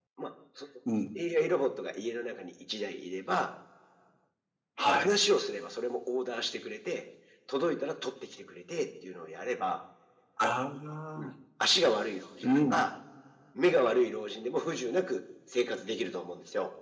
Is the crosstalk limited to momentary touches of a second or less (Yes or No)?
Yes